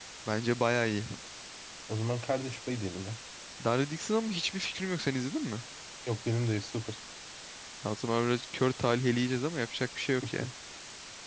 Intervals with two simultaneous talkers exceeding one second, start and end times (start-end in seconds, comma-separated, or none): none